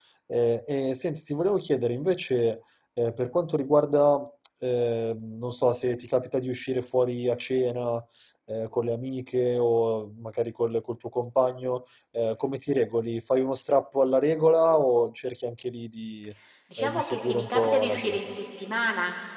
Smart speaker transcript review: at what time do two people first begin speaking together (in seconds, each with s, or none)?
16.8 s